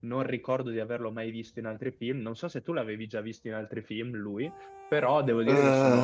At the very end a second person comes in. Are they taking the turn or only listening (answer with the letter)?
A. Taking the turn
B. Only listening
B